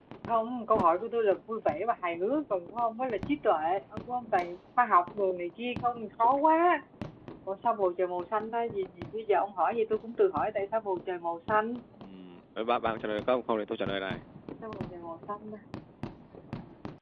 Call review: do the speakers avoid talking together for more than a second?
Yes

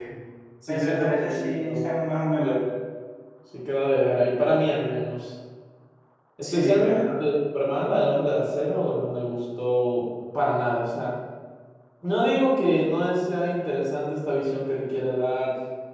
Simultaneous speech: Yes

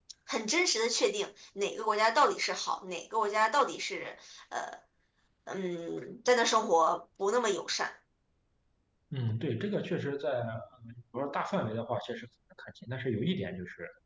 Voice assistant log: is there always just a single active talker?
Yes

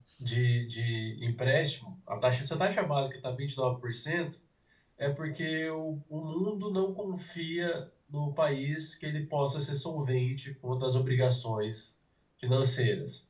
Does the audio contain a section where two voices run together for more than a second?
No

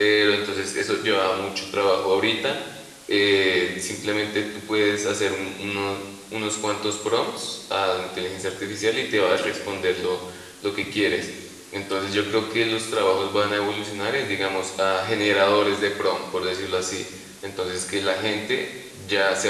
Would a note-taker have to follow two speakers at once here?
No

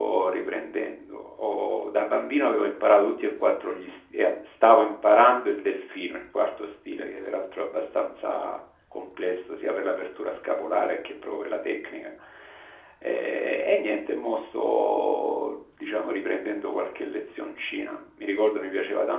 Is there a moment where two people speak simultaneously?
No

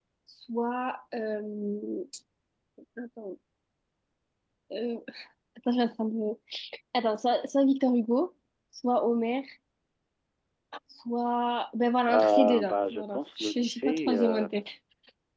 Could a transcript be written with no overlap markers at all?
No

